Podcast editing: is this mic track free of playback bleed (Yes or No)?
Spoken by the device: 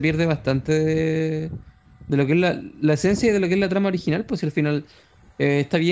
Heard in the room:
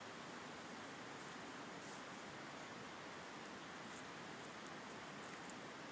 Yes